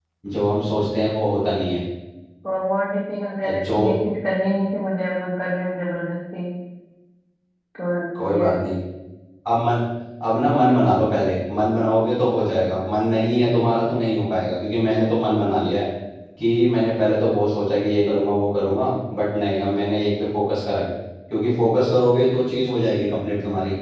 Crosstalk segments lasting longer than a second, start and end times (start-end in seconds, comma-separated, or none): none